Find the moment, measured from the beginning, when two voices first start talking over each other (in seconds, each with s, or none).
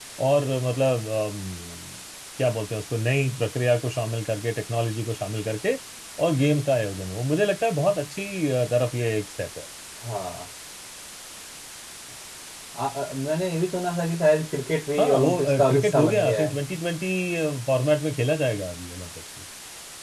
15.0 s